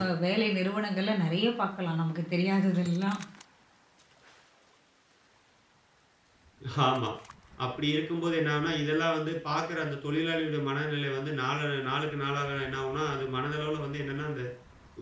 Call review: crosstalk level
none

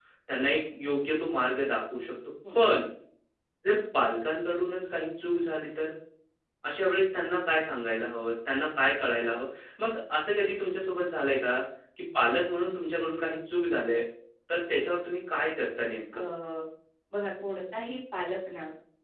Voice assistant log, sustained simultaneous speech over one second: none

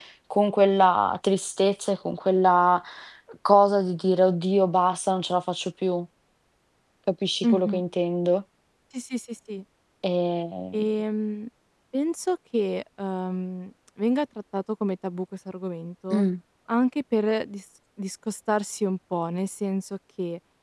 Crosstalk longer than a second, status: none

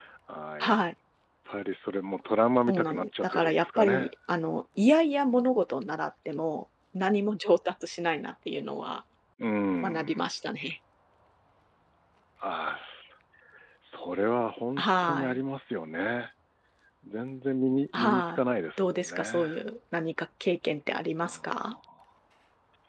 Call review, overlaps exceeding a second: present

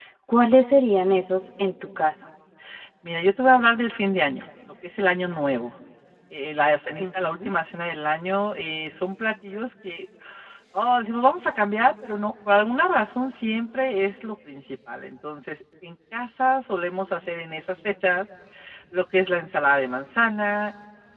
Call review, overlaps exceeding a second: none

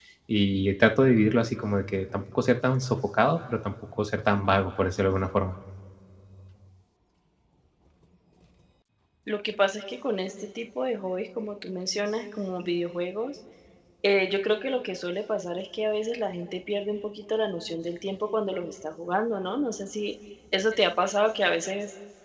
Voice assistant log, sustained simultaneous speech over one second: none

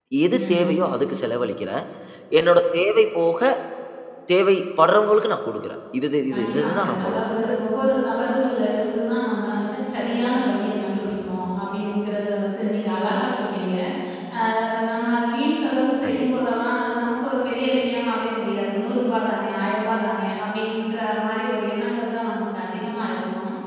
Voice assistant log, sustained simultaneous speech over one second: present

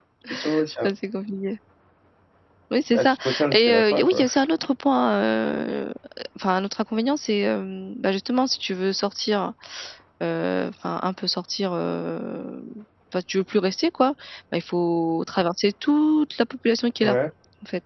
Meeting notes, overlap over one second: present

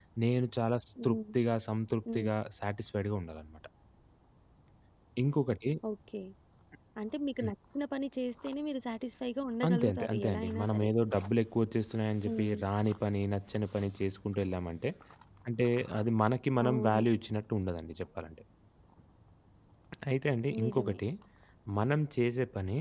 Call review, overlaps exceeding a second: present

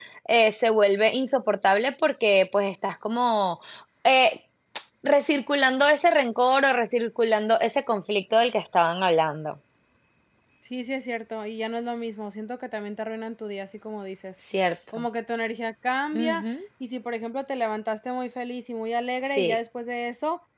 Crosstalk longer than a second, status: none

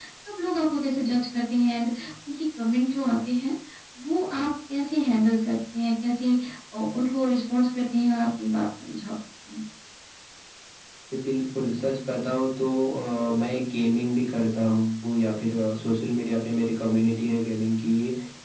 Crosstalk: none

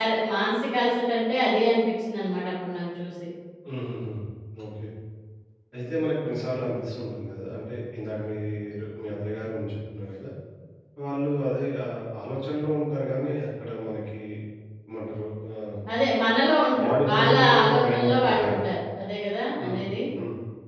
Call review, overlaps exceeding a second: present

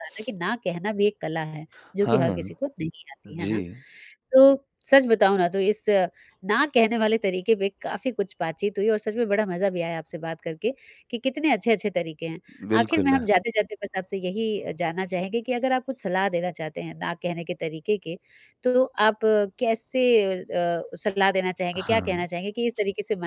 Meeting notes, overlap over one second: none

